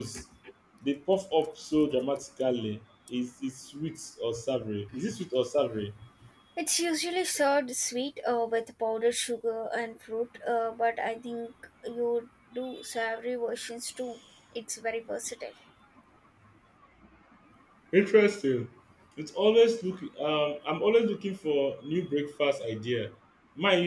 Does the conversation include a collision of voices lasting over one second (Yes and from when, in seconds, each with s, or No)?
No